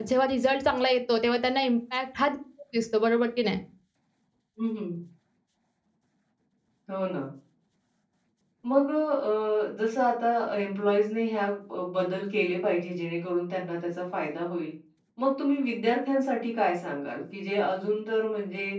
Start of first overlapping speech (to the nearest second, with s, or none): none